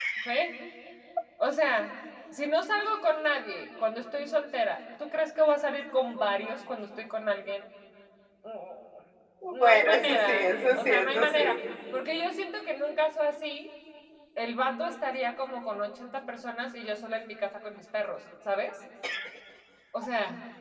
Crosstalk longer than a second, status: present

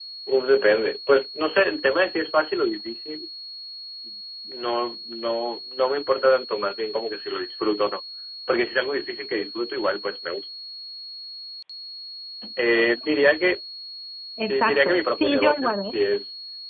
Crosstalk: present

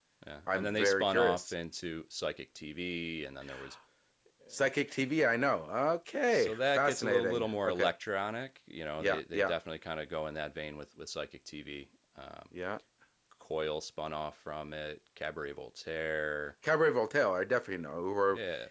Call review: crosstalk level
present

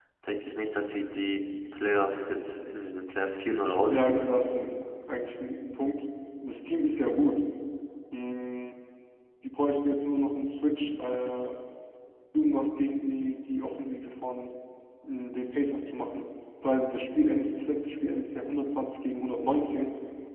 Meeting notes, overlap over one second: none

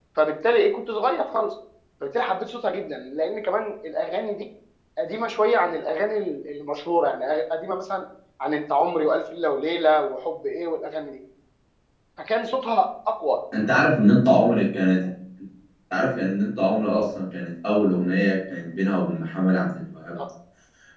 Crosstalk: none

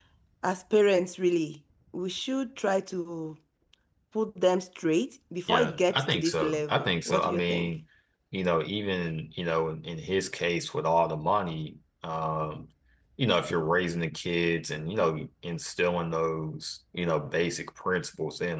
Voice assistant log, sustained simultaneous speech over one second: present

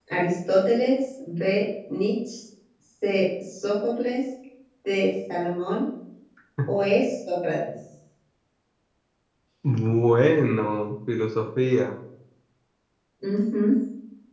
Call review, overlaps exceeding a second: none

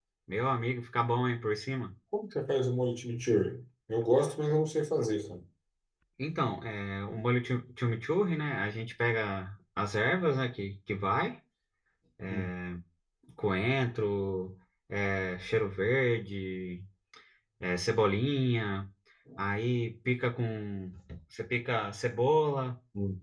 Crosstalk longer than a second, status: none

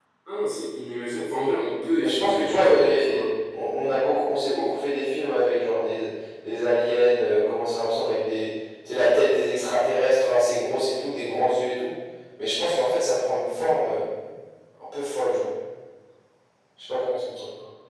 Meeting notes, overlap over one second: present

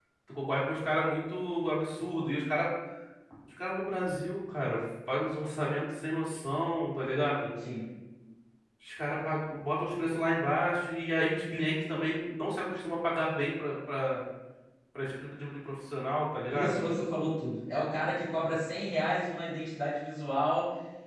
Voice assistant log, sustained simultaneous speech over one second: none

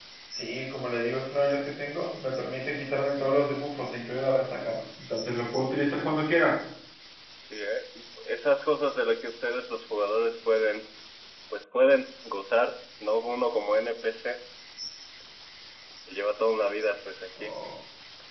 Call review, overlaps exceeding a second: none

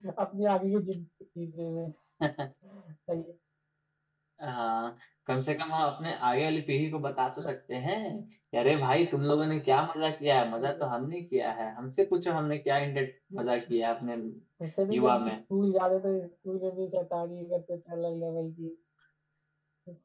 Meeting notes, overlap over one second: none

